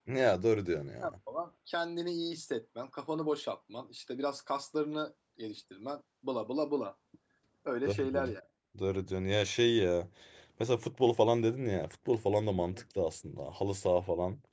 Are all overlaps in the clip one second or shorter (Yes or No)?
Yes